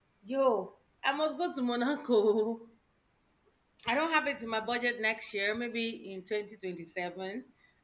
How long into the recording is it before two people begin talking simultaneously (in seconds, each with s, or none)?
none